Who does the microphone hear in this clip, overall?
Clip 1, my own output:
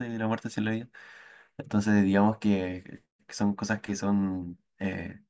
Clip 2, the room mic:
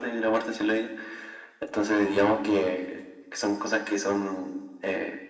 echo only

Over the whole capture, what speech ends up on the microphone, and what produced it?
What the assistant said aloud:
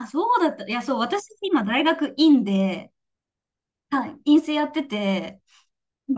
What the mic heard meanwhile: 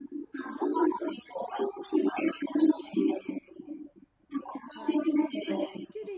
both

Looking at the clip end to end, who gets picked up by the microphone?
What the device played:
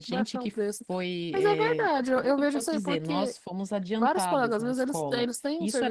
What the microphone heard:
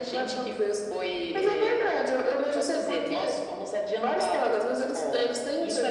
echo only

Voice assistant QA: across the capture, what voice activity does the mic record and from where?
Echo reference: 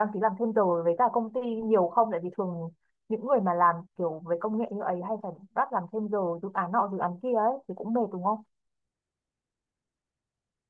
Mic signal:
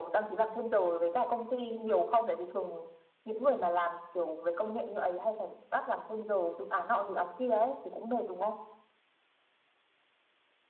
echo only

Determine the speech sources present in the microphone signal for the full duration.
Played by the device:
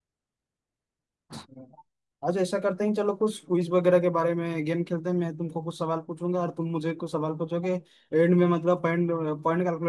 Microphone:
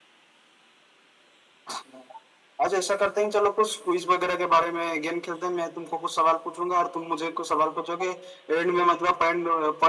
echo only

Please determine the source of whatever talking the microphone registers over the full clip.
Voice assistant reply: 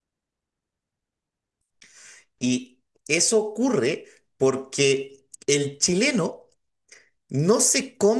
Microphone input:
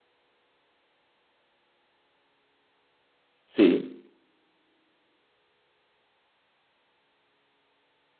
user only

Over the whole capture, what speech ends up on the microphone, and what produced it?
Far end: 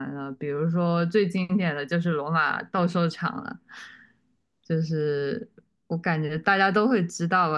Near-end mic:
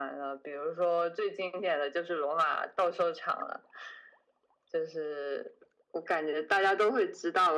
echo only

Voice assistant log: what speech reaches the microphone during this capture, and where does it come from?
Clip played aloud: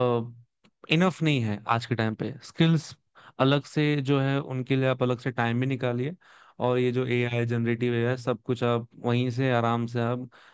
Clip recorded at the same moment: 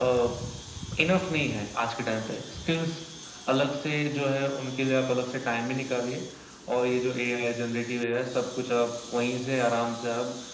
echo only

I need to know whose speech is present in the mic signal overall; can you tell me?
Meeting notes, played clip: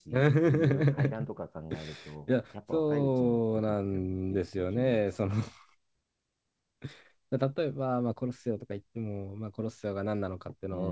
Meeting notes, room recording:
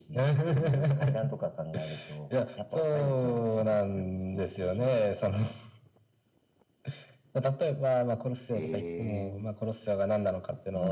both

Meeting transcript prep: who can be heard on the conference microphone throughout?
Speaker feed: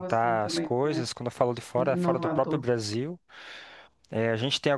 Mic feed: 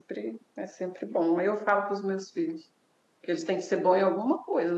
user only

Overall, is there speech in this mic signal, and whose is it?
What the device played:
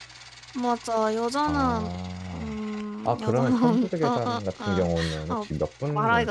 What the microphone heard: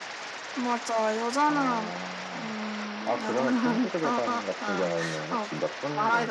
echo only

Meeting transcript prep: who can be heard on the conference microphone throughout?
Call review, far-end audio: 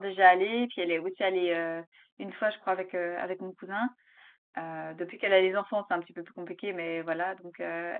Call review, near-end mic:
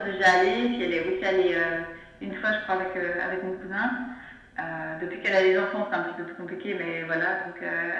echo only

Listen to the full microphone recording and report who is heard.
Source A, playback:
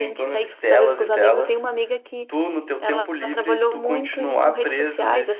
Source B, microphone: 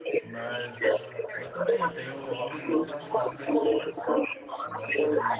both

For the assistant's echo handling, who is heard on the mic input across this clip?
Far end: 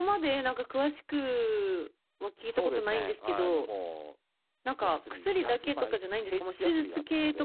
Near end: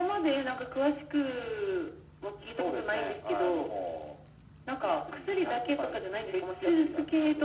echo only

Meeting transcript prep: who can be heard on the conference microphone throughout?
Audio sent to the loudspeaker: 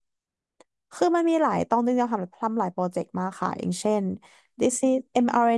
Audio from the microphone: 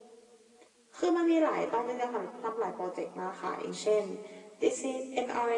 echo only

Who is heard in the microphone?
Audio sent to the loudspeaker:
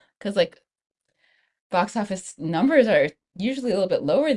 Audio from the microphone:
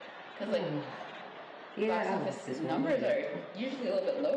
both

